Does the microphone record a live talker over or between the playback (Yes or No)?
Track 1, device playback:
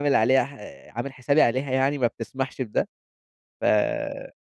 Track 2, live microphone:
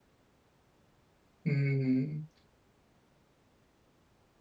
Yes